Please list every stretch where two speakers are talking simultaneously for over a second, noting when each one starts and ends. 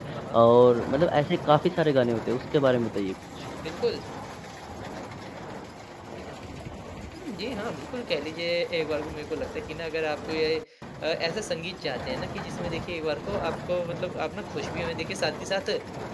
none

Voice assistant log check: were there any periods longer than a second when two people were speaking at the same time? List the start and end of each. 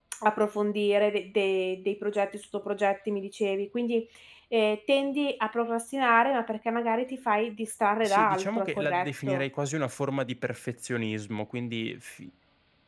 8.0-9.4

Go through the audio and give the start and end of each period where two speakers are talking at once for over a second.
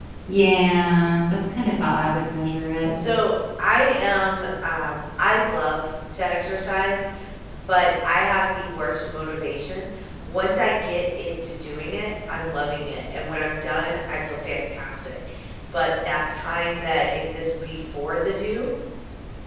none

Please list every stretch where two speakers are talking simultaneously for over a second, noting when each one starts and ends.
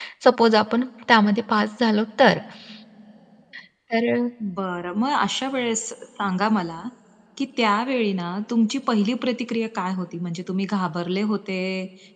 none

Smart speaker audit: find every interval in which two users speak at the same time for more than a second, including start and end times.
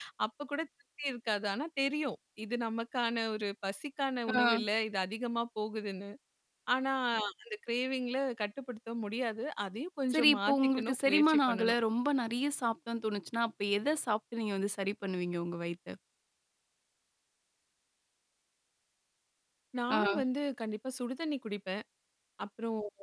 10.1-11.8

